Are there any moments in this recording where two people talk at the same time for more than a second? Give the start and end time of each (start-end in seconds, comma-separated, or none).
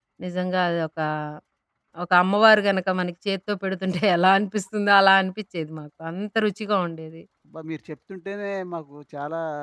none